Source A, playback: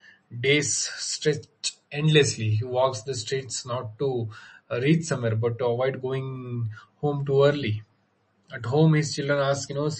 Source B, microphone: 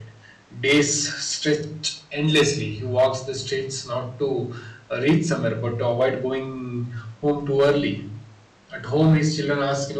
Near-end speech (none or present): none